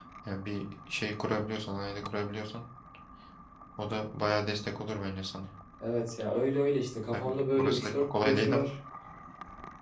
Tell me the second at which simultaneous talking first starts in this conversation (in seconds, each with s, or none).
7.1 s